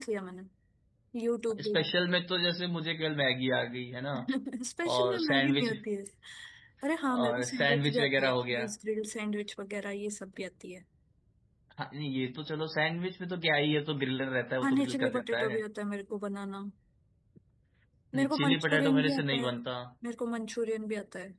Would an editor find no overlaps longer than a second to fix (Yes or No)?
No